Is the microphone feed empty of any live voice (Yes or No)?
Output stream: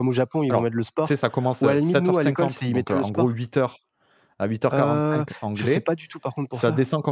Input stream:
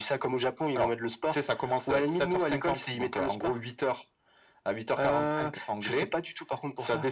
Yes